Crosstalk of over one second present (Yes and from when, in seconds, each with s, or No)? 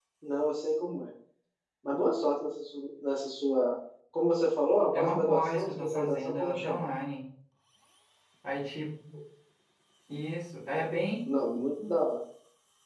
Yes, from 4.9 s